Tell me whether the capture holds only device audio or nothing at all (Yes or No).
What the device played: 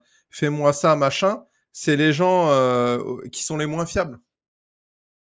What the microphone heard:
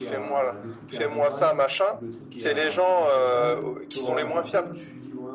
No